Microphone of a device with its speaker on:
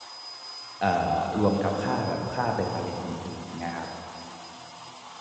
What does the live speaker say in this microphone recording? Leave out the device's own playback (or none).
เอ่อรวมกับค่าแบบค่าเบ็ดเตอร์เล็ดอื่นๆเงี้ยครับ